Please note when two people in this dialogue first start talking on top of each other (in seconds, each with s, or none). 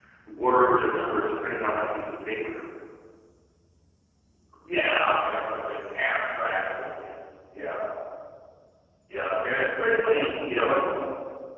none